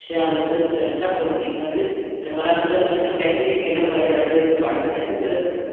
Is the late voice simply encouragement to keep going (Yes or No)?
Yes